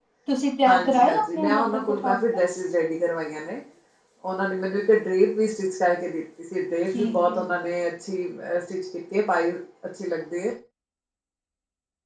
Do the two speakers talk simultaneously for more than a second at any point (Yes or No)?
Yes